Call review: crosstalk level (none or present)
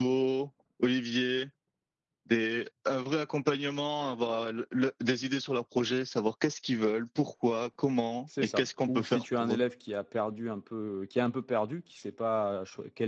present